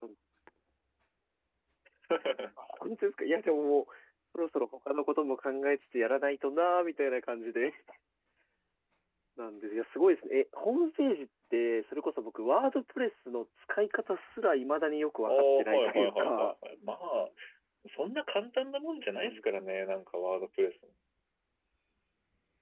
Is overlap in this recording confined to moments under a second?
No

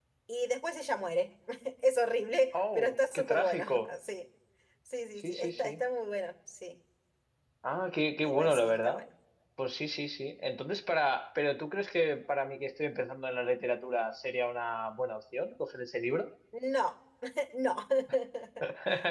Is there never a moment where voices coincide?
No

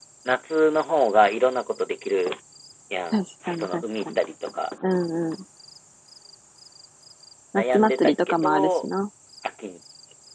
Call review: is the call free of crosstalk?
No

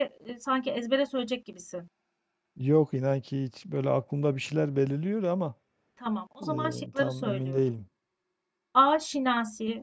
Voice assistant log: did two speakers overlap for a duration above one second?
Yes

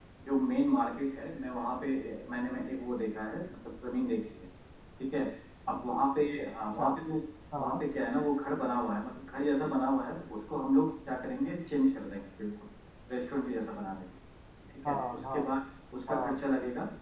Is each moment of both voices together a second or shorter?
Yes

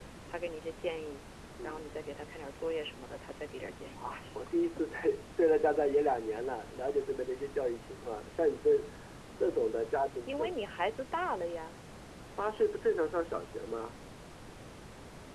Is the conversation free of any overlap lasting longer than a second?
Yes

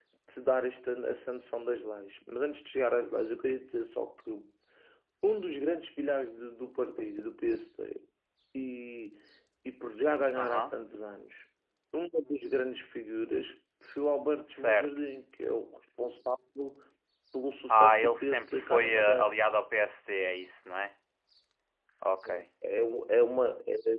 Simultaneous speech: Yes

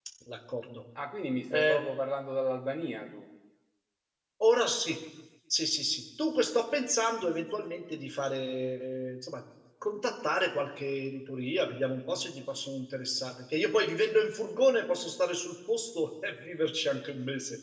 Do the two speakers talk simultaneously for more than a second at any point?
No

